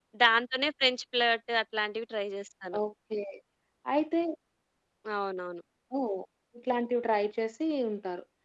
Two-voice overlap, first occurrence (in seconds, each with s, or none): none